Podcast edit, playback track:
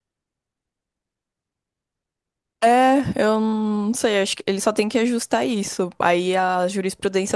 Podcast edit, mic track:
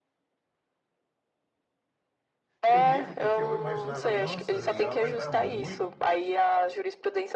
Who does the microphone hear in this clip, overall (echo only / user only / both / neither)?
both